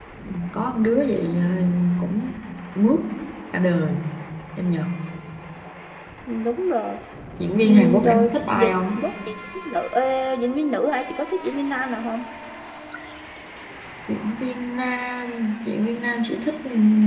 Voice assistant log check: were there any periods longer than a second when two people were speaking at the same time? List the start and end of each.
7.6-9.0

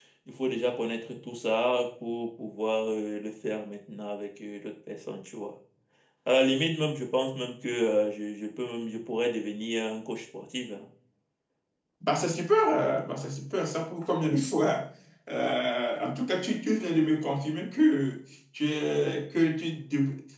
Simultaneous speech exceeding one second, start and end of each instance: none

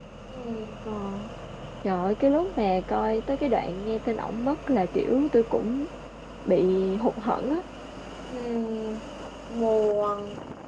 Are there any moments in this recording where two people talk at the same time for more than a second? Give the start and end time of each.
none

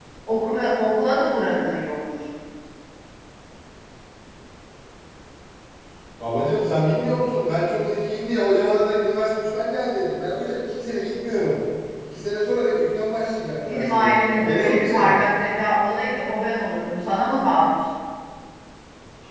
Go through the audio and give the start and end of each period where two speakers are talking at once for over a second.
13.7-15.2

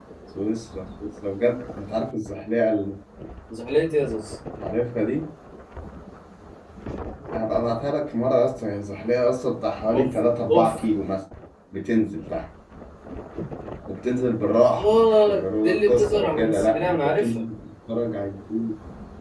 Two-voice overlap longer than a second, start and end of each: 14.8-17.3

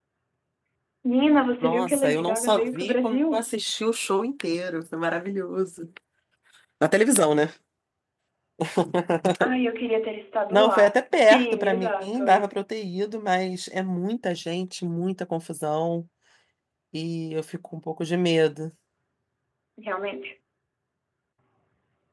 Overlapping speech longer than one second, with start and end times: 1.6-3.4, 10.5-12.2

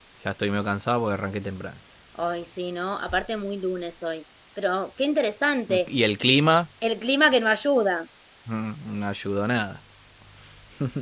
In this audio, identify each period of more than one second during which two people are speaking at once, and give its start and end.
none

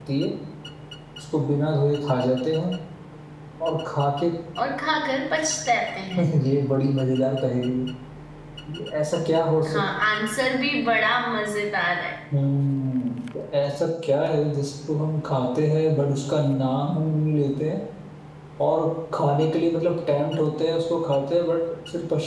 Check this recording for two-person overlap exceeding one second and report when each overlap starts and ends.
none

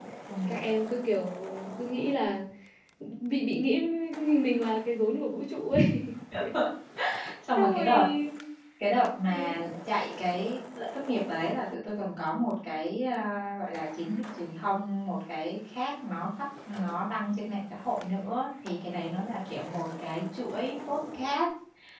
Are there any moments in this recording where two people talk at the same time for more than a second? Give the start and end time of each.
none

